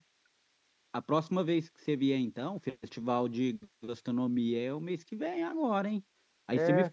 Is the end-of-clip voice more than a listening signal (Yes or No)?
No